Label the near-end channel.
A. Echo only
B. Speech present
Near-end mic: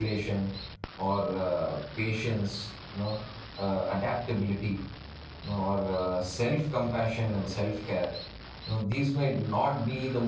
B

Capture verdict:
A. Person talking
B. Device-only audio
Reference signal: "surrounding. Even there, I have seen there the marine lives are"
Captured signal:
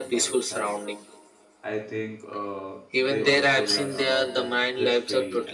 A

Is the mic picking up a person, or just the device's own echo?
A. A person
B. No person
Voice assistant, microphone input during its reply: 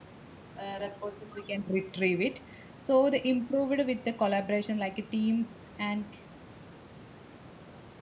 A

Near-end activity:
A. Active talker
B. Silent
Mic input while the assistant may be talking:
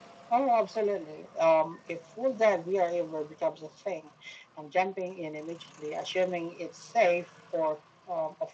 B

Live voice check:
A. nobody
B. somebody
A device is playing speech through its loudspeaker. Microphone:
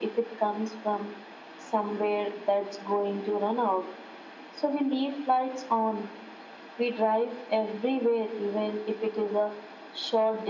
A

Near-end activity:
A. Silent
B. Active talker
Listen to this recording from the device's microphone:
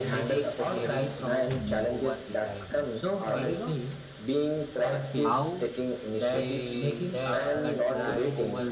B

